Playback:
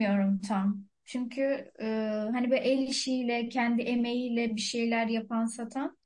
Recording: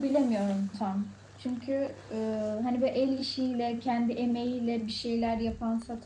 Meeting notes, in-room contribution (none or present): none